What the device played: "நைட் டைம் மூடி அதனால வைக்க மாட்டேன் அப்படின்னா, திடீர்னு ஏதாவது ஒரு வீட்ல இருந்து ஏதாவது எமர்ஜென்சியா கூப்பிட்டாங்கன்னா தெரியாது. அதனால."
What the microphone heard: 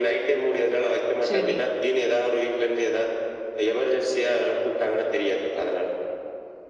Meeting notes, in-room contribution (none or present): present